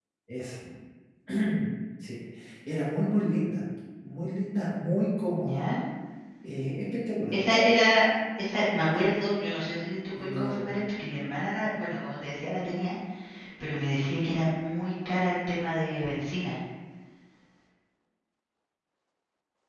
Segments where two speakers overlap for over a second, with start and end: none

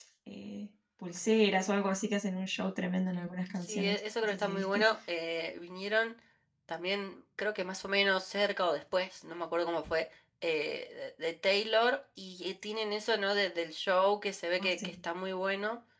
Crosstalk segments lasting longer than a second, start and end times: 3.6-4.8

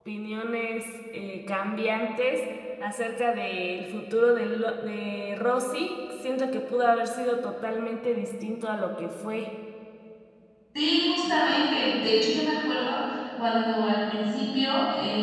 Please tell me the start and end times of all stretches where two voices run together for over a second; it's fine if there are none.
none

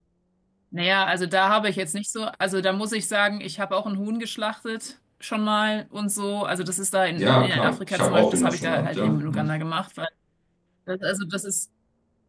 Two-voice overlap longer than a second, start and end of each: 7.2-9.5

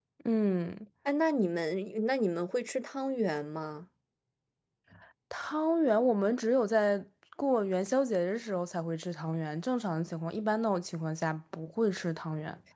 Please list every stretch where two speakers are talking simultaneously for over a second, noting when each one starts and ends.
none

